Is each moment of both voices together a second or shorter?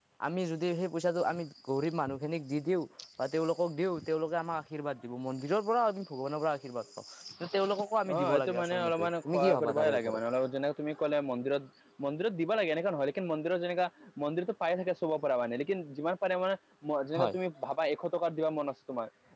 No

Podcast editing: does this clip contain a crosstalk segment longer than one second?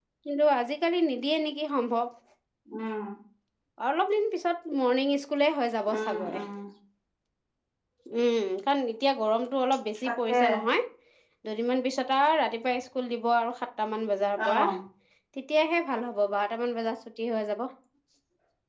No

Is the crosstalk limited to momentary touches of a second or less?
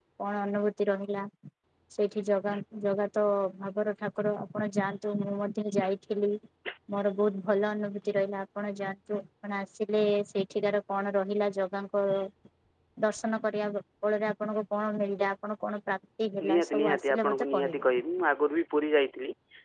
No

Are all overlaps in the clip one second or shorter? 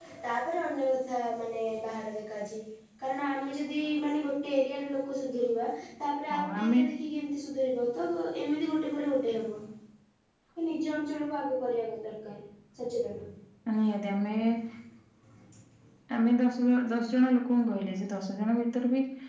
Yes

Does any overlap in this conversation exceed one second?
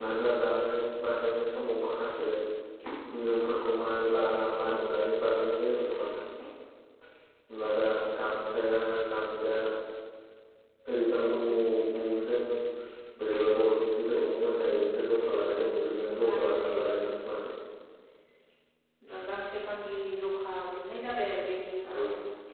Yes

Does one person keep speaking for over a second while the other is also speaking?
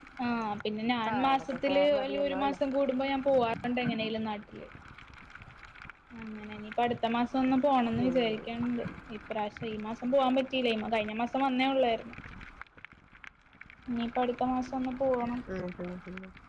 Yes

